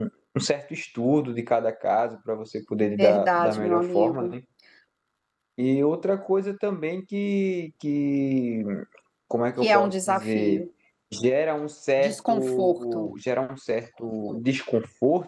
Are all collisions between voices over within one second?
No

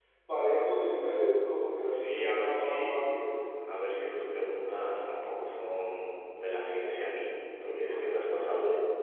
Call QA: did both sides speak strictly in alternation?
No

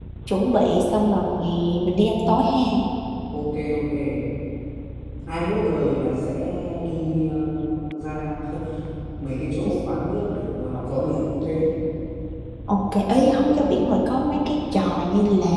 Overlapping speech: No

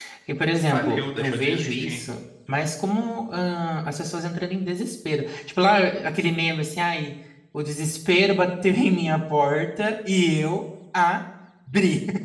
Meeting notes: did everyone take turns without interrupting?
No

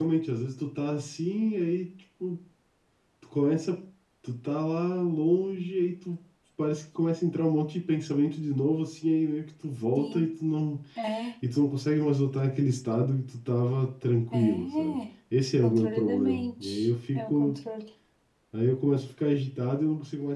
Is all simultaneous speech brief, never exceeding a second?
No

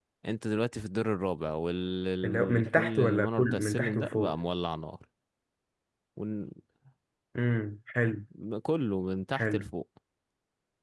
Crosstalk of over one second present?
Yes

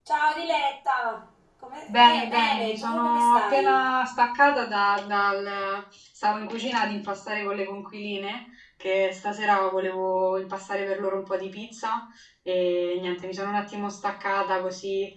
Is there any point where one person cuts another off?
Yes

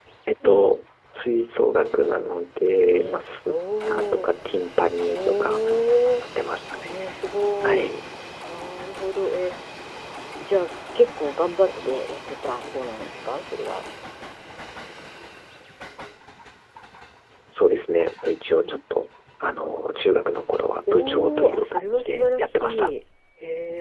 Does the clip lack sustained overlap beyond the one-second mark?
No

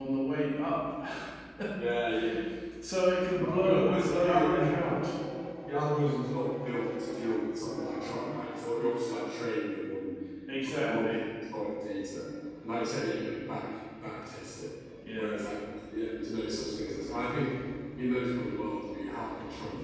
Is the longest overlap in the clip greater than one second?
Yes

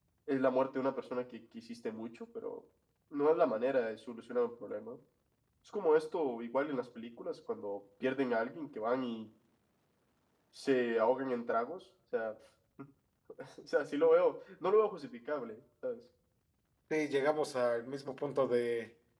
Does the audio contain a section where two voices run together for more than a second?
No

